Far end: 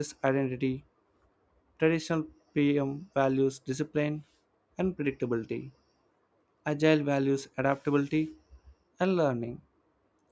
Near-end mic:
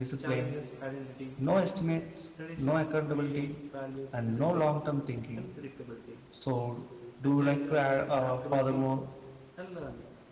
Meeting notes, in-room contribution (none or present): present